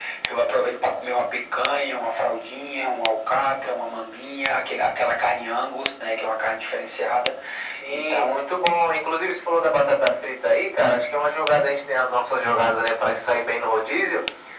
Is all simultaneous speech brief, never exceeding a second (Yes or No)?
Yes